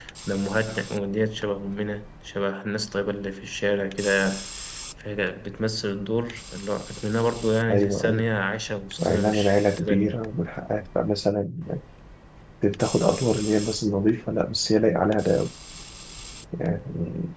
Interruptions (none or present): present